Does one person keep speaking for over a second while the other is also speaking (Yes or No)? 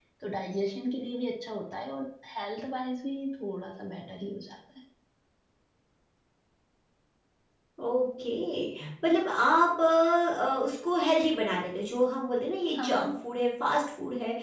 No